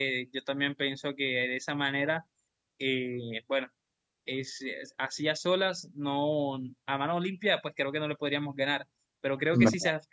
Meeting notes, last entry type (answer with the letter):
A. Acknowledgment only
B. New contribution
A